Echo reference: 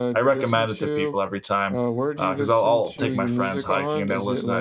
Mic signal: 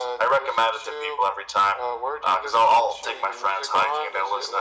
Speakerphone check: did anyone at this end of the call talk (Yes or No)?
No